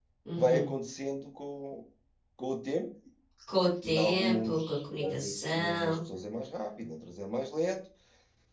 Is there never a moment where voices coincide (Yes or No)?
No